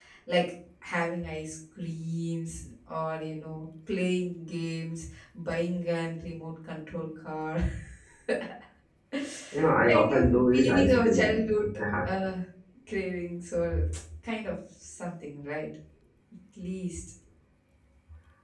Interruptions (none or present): present